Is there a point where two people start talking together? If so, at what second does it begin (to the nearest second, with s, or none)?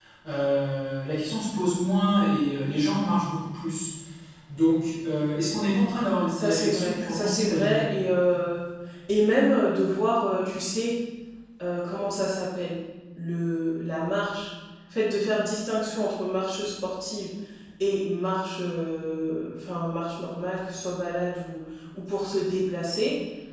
6 s